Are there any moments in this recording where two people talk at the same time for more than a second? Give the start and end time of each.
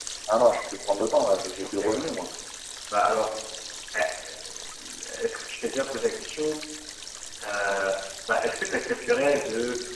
none

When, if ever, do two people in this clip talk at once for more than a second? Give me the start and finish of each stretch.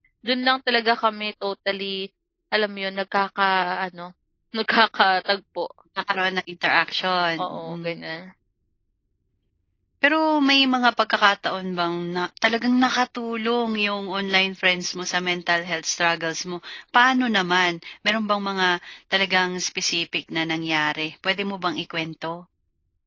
none

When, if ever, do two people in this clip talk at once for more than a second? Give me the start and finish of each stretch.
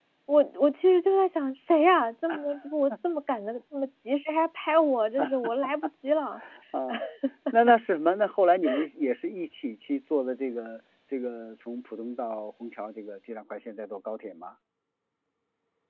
none

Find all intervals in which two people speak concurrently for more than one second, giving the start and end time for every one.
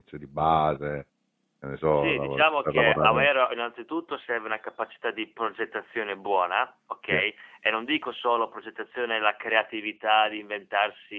1.9-3.3

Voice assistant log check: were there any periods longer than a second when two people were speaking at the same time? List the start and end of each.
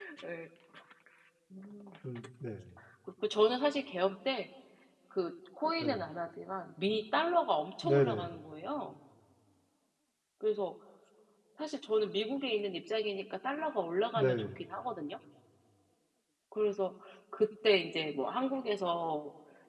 none

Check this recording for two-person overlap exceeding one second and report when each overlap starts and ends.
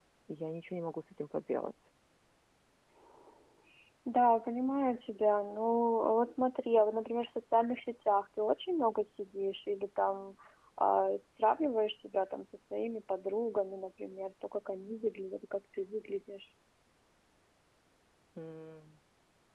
none

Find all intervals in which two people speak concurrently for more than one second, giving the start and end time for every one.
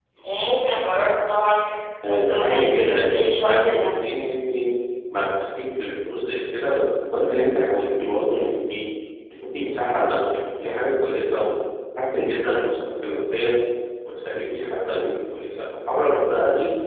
2.0-4.1

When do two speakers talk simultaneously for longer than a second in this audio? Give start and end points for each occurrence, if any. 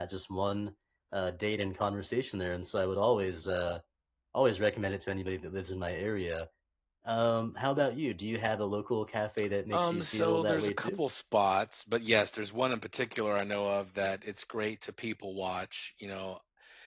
9.7-11.0

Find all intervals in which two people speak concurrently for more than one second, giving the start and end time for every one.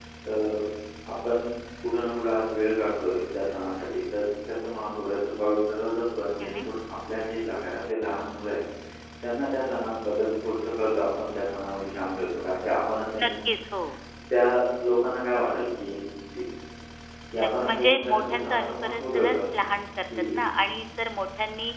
17.4-19.4

